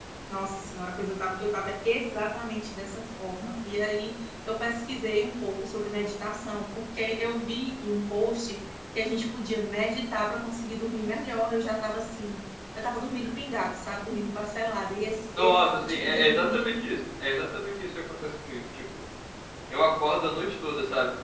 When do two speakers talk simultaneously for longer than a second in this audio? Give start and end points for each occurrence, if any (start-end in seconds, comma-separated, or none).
15.4-16.7